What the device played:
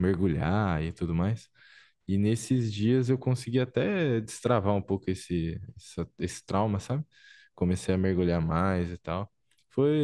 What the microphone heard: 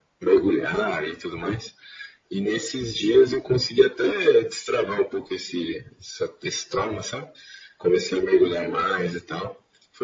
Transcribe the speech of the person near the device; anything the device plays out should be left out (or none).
none